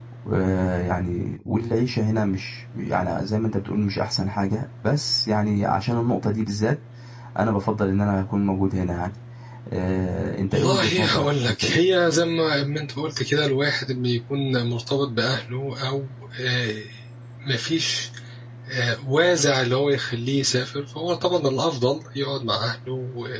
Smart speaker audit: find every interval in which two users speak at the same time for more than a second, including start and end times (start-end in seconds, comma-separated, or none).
10.5-11.8